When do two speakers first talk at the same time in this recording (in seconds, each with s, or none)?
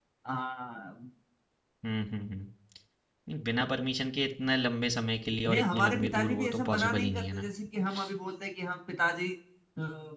5.4 s